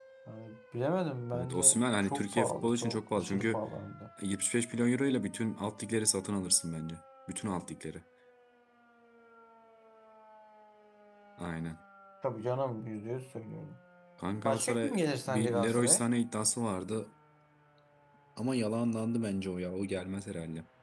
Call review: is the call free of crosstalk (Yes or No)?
No